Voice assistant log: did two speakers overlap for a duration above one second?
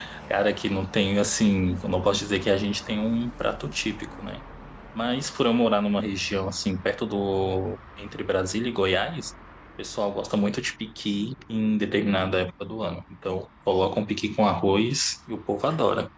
No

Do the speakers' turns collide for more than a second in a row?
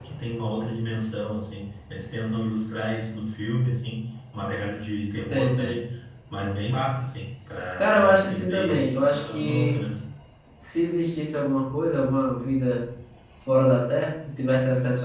Yes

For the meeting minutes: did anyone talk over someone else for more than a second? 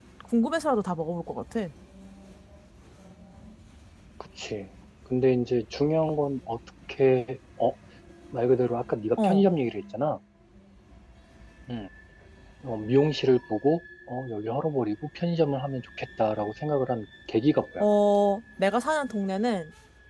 No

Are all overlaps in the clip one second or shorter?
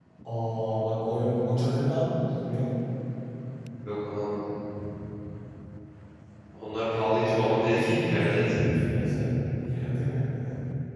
No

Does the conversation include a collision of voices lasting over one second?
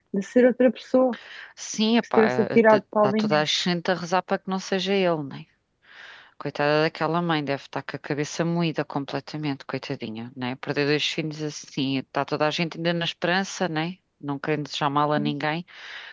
Yes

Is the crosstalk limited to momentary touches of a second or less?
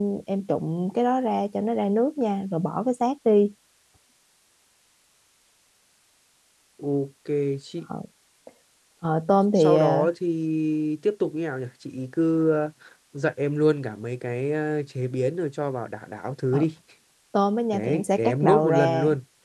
No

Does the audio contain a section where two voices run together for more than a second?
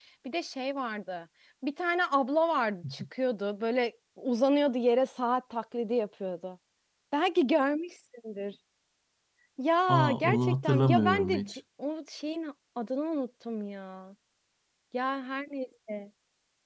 Yes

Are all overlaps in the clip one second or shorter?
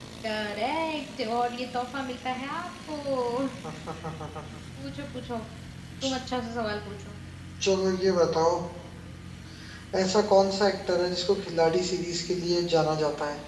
Yes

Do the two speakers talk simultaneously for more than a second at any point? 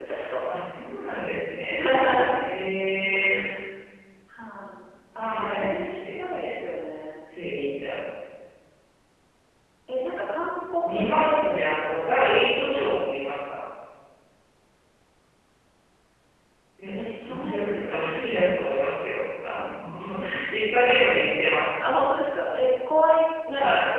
Yes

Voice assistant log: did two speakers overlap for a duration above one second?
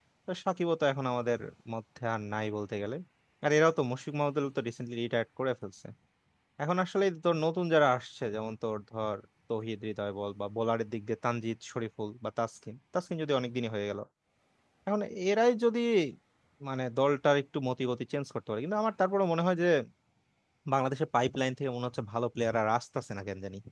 No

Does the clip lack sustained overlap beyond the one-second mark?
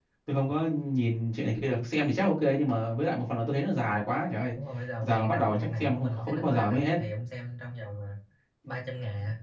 No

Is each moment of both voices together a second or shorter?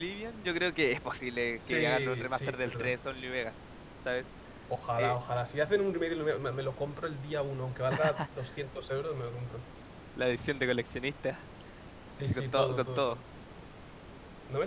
No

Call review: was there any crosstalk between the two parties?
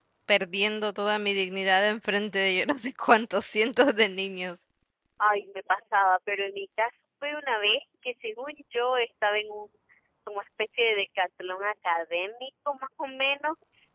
No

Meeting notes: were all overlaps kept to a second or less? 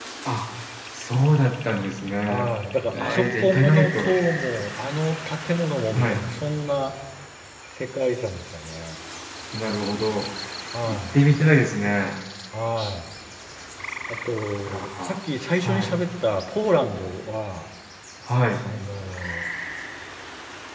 No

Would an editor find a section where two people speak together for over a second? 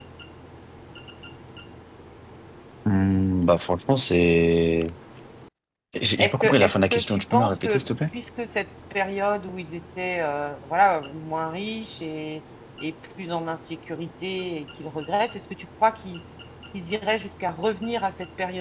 Yes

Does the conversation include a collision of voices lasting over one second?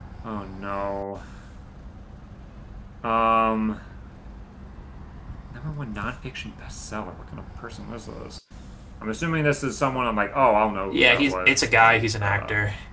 Yes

